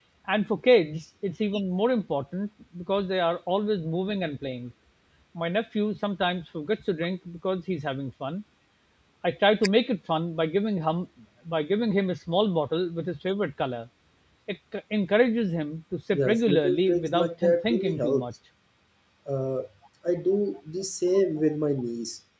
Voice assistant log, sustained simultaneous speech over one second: present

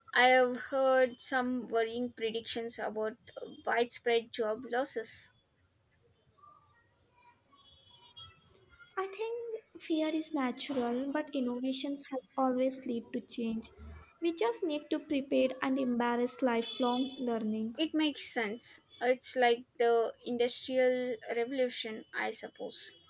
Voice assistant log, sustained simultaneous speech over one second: none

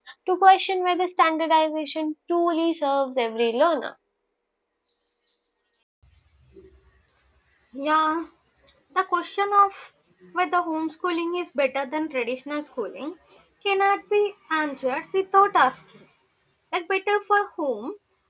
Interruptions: none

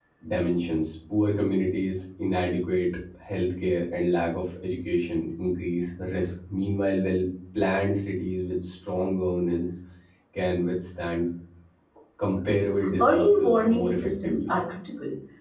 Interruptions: present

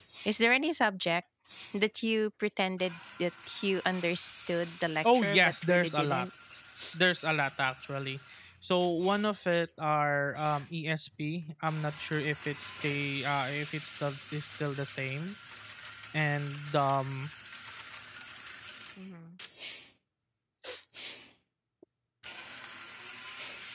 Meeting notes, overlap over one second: present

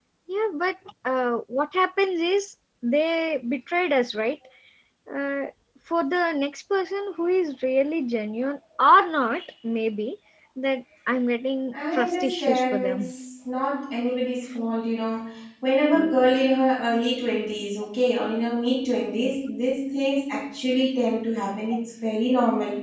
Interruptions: present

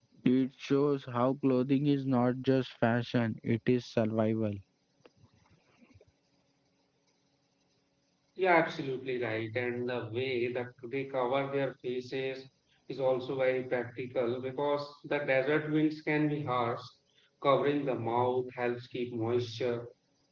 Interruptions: none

